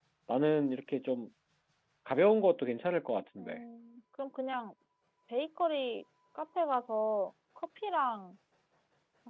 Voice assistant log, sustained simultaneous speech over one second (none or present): none